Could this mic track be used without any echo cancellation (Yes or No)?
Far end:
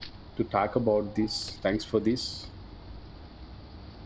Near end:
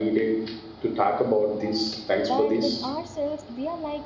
No